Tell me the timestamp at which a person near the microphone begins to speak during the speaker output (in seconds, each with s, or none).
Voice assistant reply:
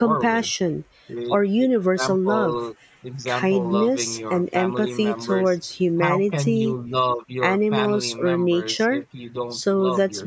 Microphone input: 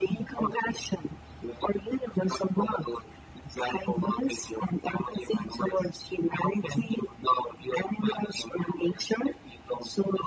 none